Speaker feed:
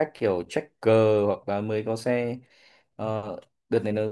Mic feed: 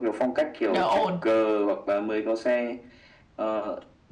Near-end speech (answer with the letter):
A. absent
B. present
B